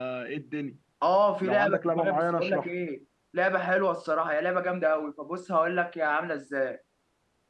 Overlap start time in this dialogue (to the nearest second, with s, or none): 1 s